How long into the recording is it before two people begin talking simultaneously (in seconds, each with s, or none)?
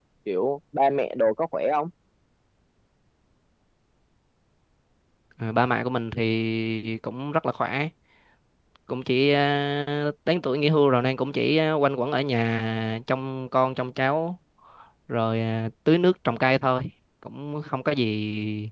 none